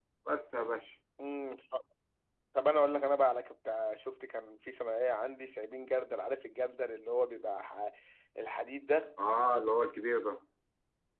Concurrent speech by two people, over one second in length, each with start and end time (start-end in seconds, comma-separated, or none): none